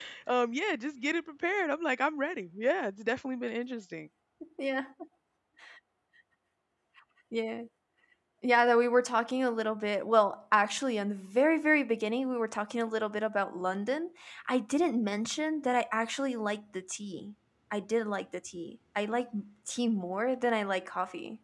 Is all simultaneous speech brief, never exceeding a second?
Yes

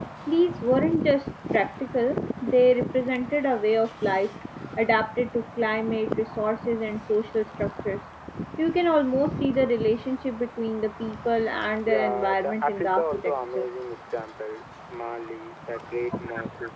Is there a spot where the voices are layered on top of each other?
Yes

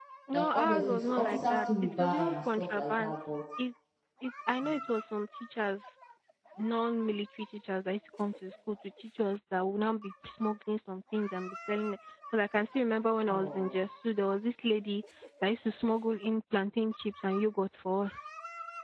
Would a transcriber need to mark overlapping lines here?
Yes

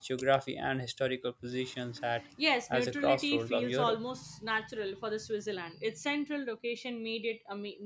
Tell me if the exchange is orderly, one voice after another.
No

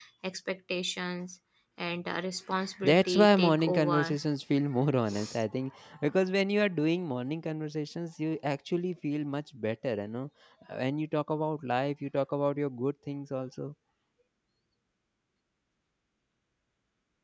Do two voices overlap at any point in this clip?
Yes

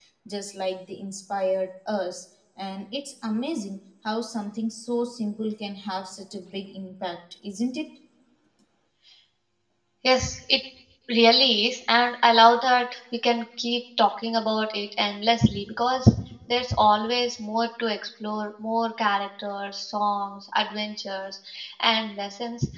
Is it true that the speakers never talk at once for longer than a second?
Yes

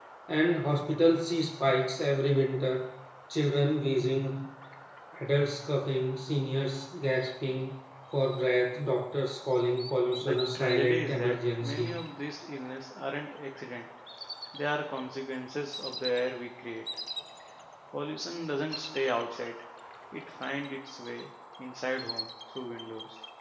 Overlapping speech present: Yes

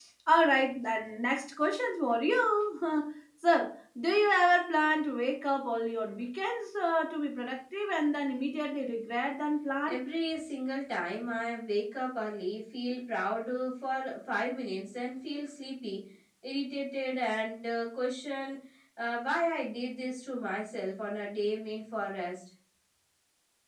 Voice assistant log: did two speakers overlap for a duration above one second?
No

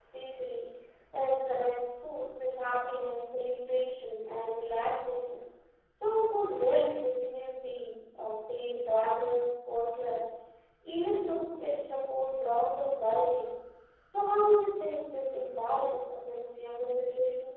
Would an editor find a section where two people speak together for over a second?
No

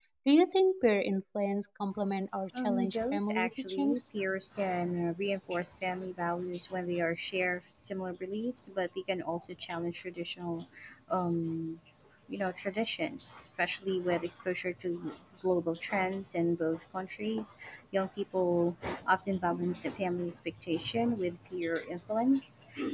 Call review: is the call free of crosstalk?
No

